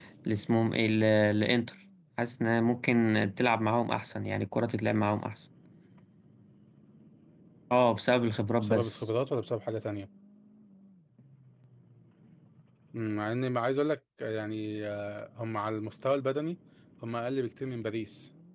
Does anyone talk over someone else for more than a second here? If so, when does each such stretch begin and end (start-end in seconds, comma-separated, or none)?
none